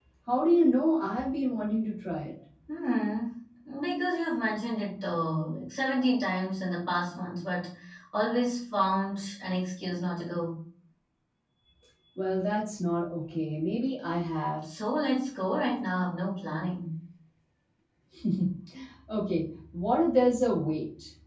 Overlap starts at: none

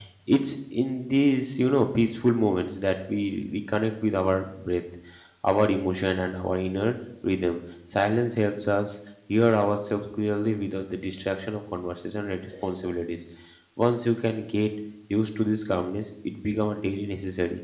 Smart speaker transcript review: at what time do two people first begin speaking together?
none

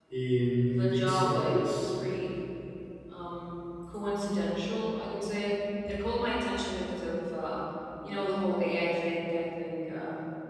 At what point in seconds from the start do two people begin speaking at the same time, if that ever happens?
0.6 s

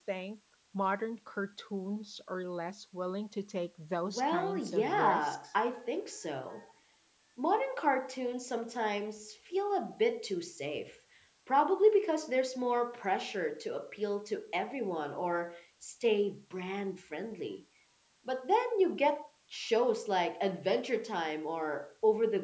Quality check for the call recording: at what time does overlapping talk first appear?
4.1 s

